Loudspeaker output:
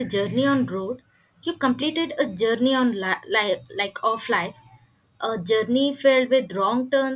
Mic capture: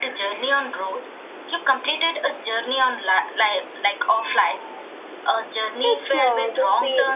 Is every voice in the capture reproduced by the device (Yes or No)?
No